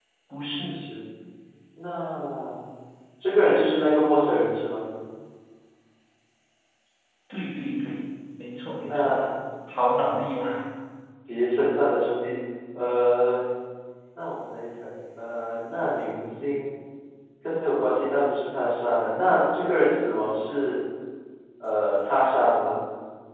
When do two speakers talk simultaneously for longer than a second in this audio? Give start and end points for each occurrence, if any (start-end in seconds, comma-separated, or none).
none